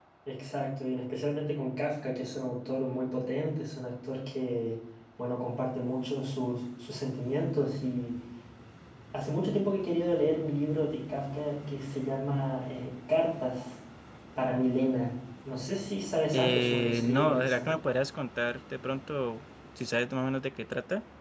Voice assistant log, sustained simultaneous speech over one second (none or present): present